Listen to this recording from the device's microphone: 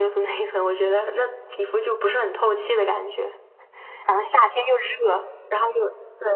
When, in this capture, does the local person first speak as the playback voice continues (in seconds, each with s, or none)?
none